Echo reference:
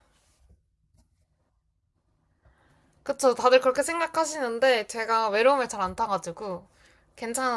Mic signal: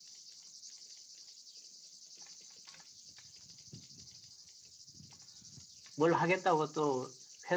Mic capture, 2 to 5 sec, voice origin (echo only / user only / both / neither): neither